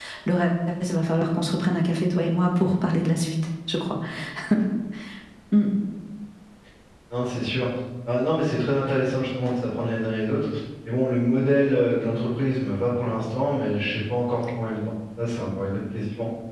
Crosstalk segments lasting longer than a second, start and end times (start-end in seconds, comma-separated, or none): none